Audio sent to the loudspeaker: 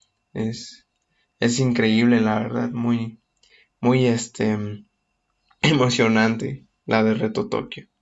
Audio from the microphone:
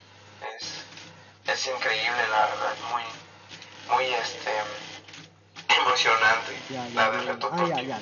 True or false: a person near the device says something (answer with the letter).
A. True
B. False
A